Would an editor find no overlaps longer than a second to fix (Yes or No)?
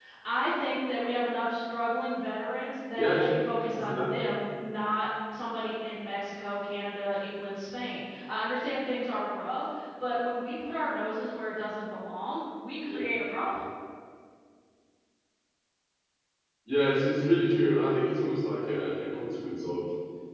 Yes